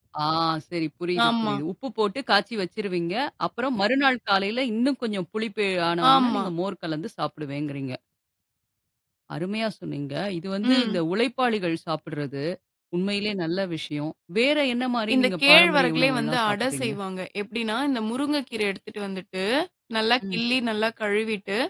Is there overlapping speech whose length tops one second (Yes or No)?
Yes